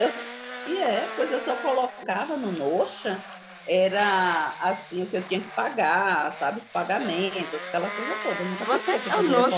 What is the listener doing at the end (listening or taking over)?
taking over